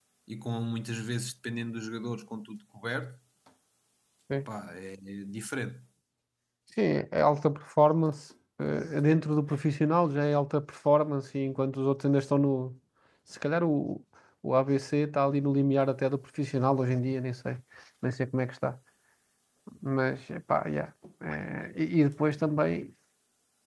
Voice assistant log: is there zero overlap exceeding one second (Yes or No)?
Yes